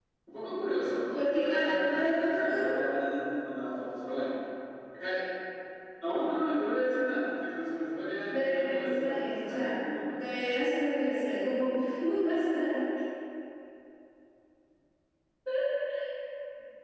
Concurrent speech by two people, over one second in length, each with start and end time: 1.1-2.7, 8.3-9.7

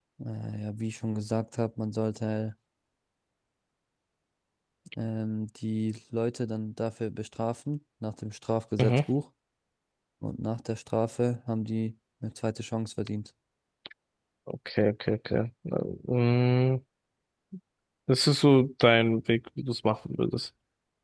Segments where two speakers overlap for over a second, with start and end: none

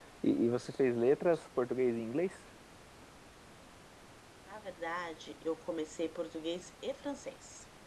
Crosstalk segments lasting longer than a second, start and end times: none

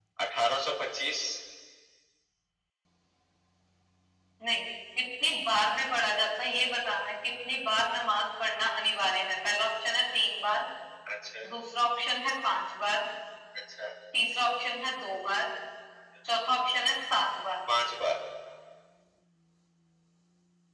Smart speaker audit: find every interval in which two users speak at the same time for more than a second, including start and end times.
none

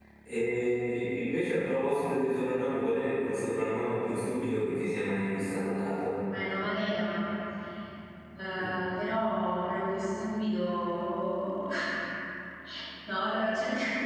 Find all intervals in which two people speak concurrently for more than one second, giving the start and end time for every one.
none

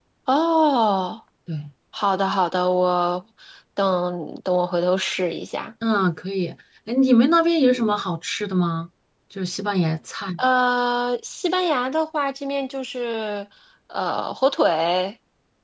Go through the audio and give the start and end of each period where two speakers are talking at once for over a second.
none

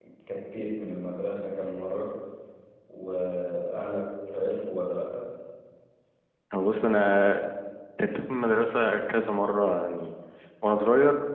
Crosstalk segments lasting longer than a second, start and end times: none

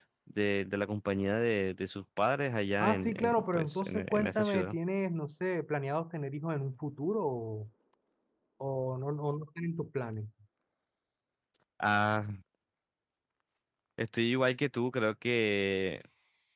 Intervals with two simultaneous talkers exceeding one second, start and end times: 2.8-4.8

